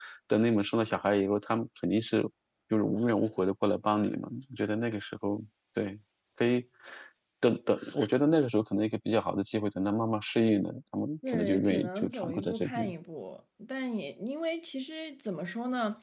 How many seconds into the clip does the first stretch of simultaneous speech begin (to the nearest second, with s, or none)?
11 s